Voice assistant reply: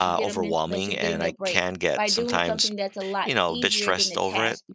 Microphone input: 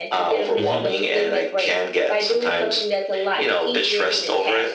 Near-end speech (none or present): present